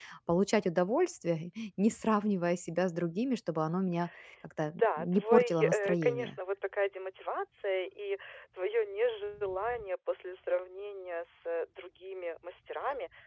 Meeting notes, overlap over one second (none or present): present